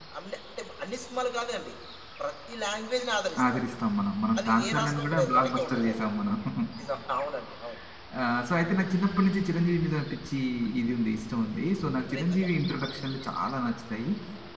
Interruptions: present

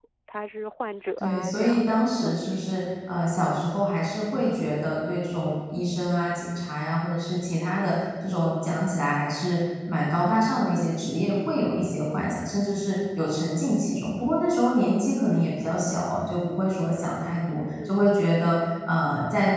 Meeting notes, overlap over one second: present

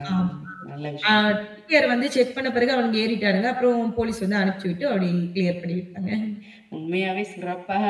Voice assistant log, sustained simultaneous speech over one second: none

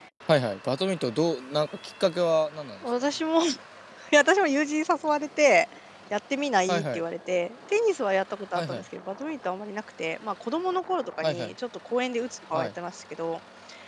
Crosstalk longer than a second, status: none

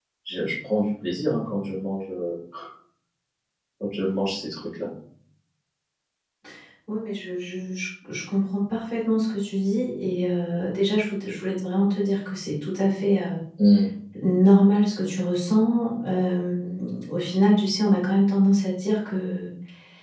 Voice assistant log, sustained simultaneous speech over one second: none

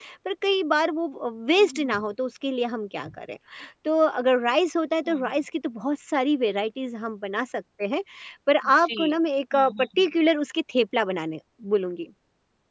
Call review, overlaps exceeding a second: none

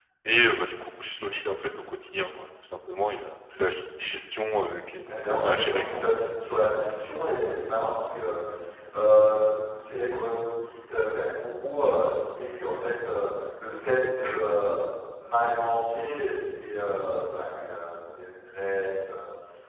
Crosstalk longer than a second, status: present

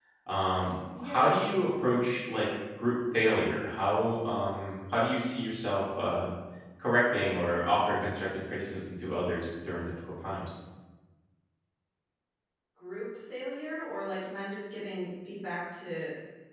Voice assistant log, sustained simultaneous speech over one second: none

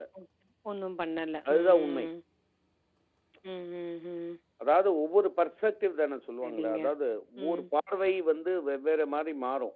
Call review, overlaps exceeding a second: none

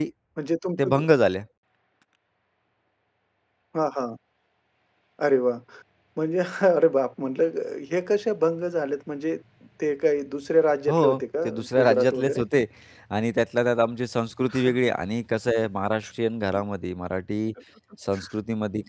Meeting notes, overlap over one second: present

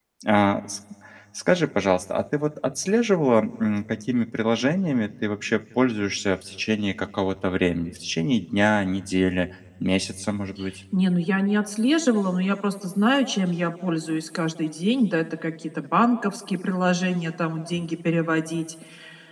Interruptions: none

